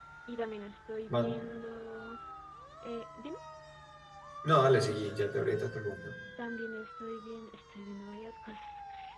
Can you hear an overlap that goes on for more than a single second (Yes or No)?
No